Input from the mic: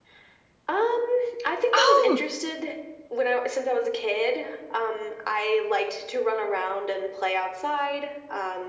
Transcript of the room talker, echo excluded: Oh,

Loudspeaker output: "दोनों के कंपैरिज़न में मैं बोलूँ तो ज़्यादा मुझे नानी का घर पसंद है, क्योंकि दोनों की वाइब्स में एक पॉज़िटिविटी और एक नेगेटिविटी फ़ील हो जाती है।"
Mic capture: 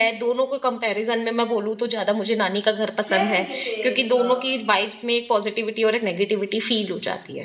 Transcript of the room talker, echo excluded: शहर में कैसे अ,

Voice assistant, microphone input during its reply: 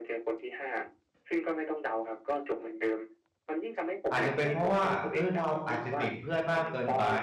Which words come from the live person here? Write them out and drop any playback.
อาจจะเป็นเพราะว่าเออเราอาจจะติดเพื่อนมากเกินไป

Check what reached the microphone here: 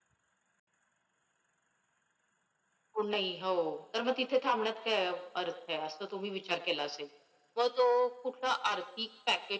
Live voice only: none

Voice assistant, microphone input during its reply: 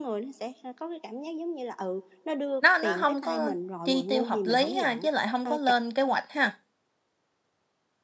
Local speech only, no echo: Nó nó không có chi tiêu hợp lý ha, chứ lại không có lên kế hoạch ha.

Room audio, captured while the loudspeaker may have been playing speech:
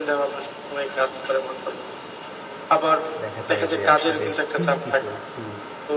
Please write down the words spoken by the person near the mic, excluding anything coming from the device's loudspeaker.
দেখা যায় যে আপনি বেশ চিন্তিত? একটু

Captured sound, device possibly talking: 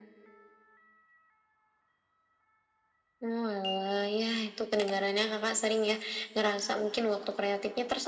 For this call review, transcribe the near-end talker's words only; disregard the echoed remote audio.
none

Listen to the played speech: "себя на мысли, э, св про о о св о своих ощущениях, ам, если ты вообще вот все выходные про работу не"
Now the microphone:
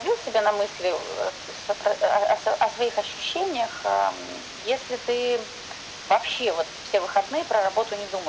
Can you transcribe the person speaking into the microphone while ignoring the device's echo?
none

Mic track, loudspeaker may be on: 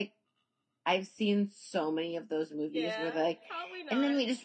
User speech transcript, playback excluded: Yeah, probably not.

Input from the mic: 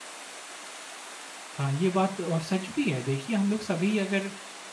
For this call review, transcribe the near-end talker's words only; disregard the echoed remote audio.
हाँ, ये बात और सच भी है। देखिए हम लोग सभी अगर

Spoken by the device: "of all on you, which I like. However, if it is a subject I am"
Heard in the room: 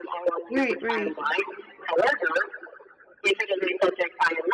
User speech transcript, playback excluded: Right, right.

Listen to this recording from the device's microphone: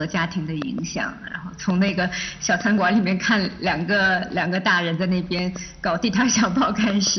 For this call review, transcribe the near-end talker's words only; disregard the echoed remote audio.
none

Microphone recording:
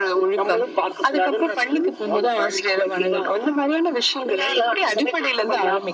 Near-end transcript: none

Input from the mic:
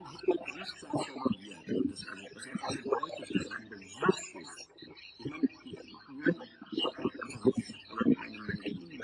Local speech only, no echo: none

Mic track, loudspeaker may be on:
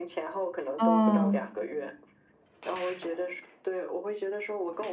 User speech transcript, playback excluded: 啊、

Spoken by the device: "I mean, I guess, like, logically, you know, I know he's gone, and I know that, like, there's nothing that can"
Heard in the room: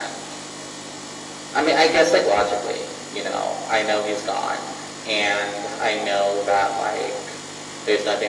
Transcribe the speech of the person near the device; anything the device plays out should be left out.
none

